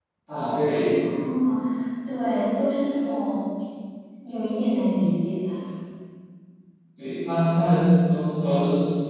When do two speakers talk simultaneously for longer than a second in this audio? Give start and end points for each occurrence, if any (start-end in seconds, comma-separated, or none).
none